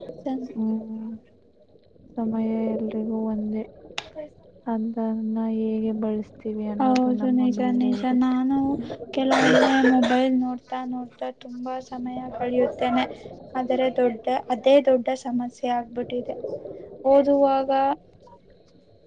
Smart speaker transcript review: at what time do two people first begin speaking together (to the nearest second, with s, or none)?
7 s